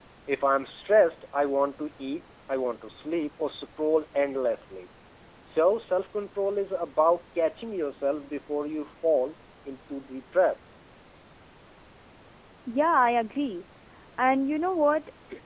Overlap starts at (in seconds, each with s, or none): none